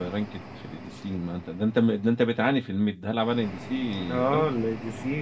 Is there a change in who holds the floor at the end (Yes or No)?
Yes